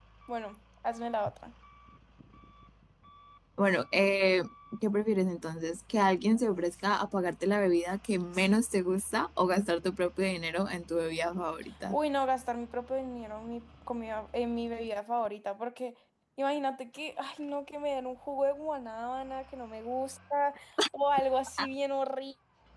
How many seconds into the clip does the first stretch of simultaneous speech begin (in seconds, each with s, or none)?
none